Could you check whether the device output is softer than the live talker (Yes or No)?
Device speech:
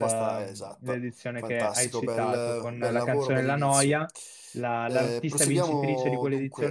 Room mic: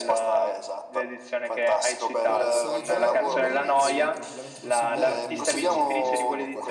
No